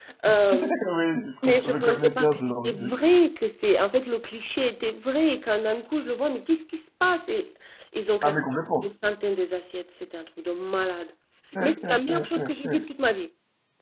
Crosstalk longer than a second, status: present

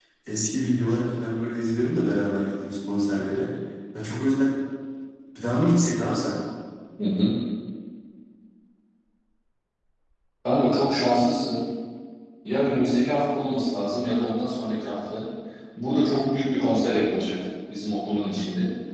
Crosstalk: none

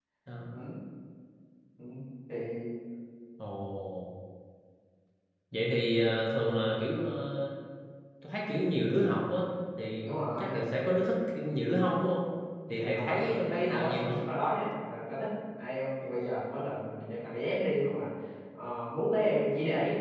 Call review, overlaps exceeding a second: present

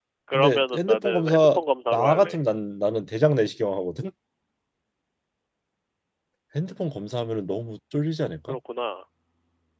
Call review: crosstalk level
present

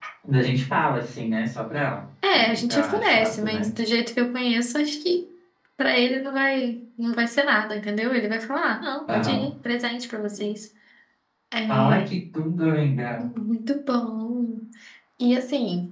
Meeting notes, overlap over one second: present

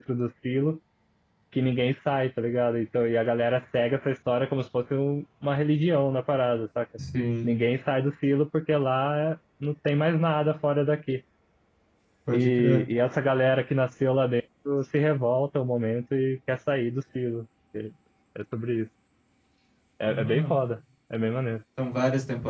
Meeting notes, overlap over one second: none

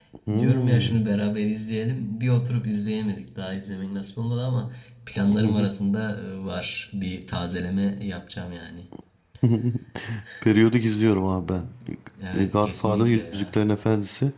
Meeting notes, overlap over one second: present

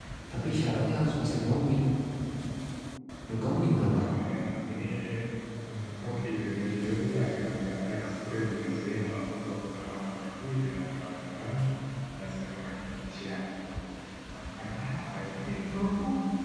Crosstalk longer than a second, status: none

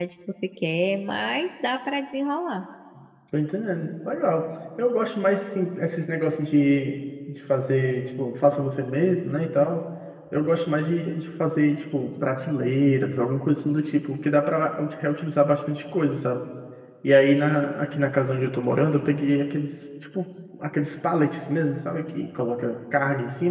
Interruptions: none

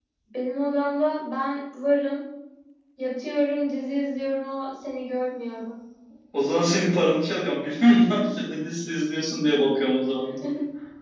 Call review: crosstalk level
none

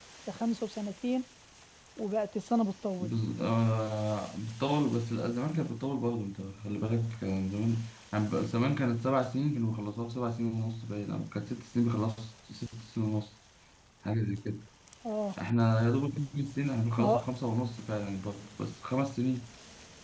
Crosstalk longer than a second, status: none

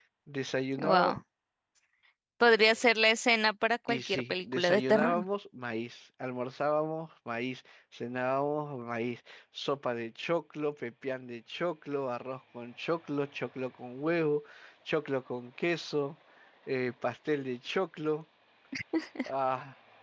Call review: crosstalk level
present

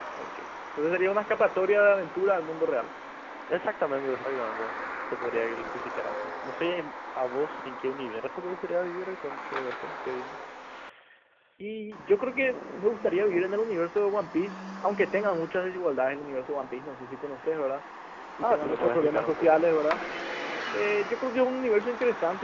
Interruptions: present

